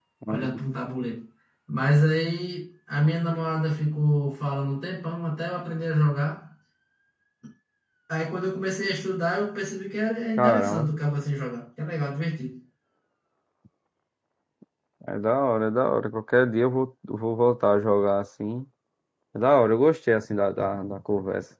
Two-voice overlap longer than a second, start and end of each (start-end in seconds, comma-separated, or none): none